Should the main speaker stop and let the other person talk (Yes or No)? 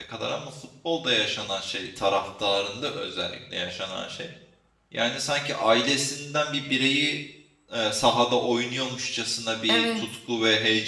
No